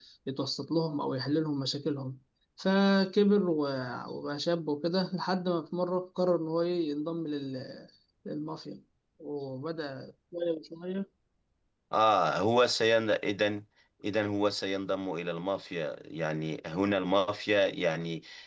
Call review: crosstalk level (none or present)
none